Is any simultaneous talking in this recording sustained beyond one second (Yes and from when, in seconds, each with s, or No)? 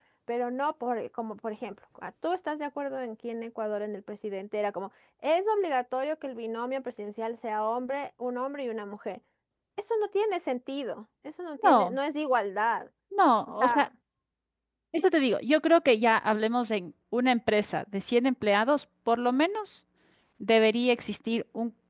No